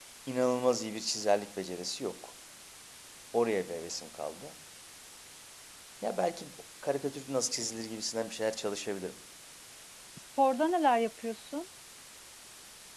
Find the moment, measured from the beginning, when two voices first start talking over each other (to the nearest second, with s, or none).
none